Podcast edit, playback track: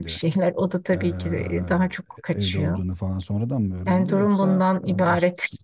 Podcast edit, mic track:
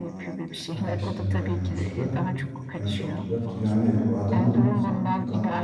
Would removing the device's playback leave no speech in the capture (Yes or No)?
No